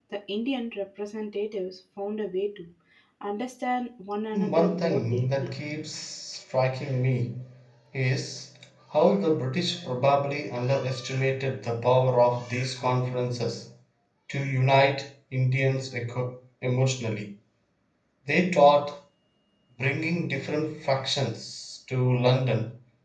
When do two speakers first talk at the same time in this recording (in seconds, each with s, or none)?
4.3 s